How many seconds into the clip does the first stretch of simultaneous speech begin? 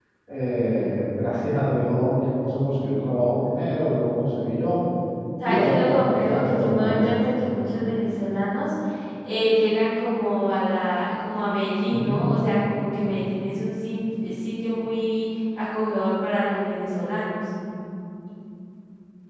5.4 s

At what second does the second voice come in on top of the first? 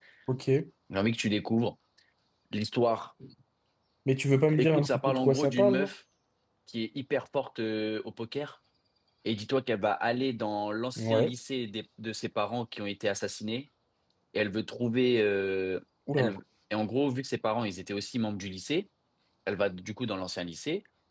4.6 s

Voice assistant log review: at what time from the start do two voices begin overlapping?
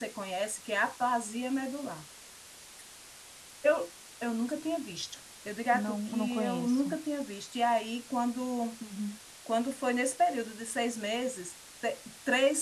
5.7 s

